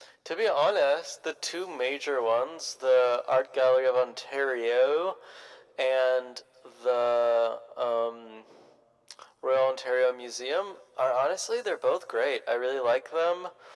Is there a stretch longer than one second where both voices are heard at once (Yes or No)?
No